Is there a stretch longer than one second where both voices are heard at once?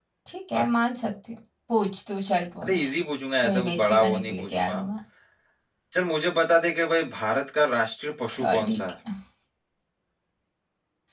Yes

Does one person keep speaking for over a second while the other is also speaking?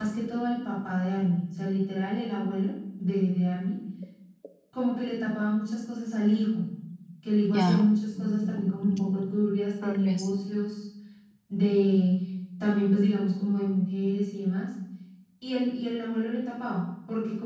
Yes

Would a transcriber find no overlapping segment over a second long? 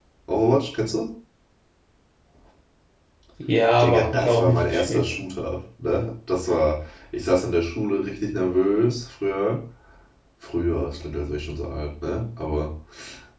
No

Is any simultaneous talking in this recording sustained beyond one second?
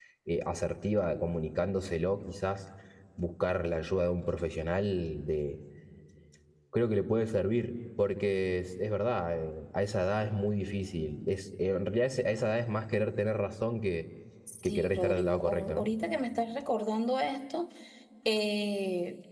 Yes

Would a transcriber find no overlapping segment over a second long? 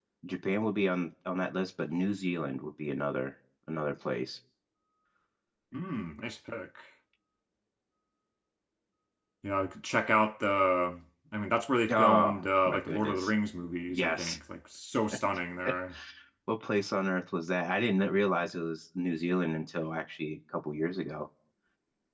No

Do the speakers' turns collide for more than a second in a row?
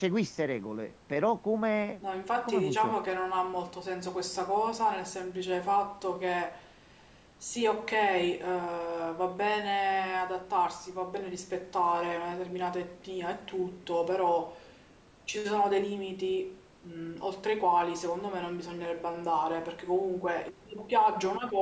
No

